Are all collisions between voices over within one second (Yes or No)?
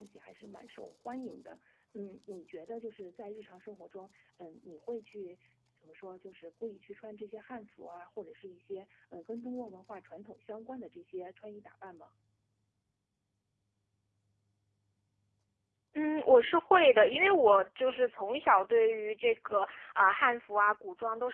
Yes